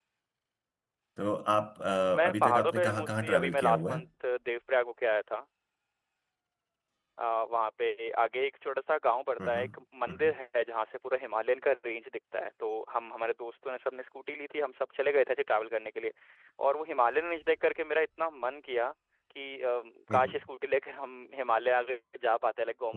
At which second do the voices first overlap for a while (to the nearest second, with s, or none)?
2 s